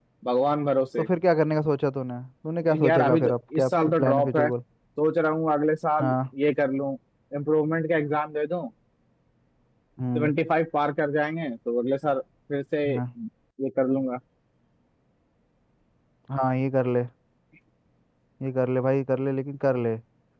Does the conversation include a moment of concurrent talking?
Yes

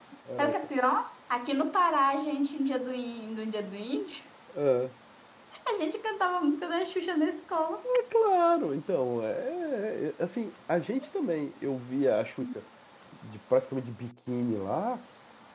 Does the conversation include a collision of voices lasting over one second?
No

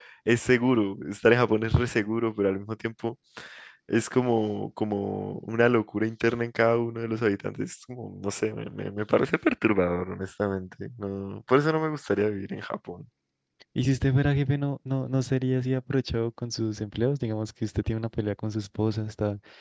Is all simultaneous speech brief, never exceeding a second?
Yes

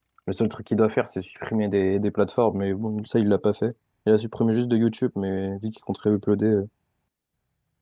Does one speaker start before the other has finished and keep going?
No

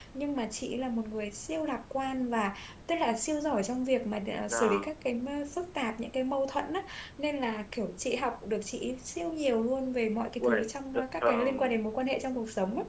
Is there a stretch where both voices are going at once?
Yes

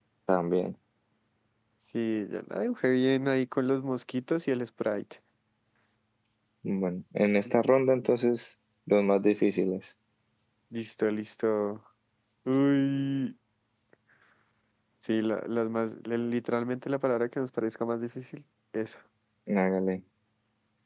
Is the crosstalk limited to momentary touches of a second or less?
Yes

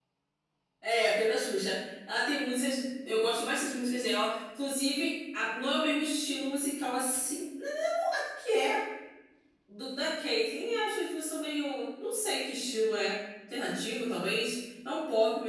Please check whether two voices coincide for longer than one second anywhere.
No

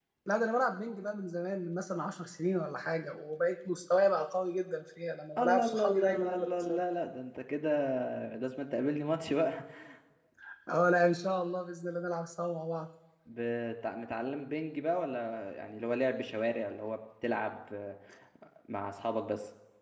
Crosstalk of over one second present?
Yes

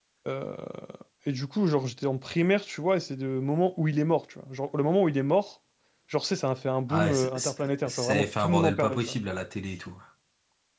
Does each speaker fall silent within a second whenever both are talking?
No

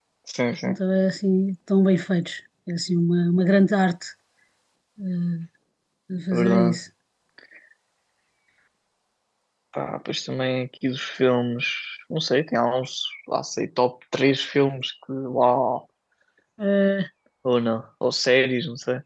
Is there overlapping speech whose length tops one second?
No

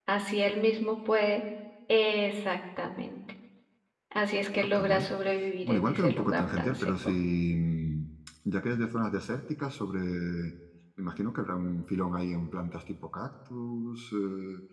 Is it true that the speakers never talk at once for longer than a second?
No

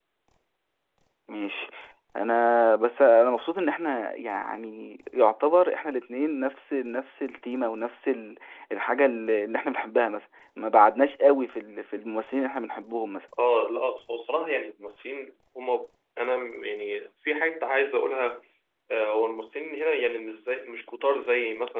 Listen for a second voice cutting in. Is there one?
No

